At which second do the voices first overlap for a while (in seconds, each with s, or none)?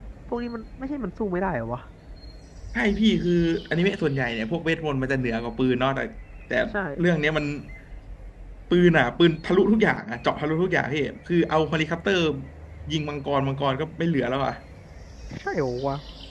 none